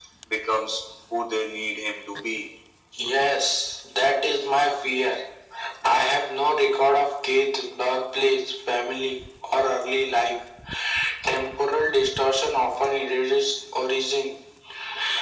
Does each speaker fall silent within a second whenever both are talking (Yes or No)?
Yes